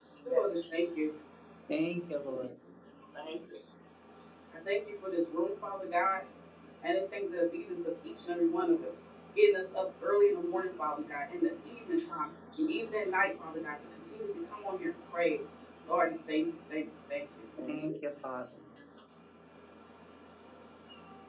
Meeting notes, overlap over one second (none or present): none